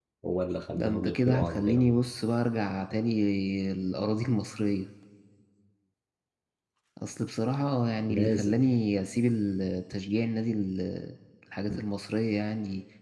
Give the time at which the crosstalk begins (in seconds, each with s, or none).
0.8 s